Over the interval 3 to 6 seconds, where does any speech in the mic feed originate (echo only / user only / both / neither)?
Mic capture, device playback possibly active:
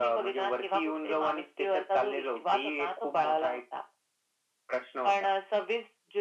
echo only